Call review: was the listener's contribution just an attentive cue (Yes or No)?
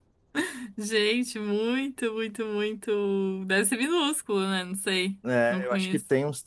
No